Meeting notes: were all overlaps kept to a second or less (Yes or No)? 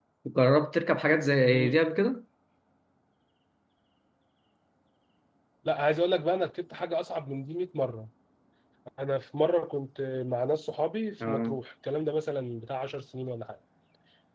Yes